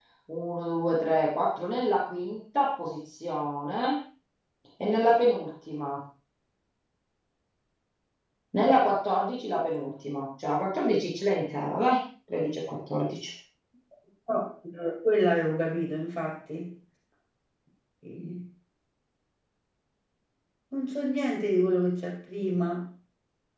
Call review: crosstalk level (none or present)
none